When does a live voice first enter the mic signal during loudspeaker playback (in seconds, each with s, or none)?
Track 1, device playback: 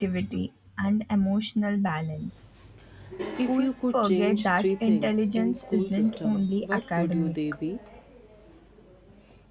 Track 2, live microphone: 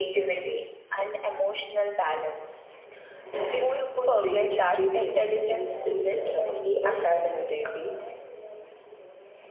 none